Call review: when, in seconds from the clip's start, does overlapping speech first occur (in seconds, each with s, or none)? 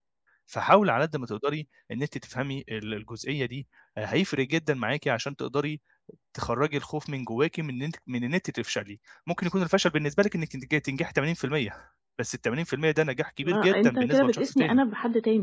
13.4 s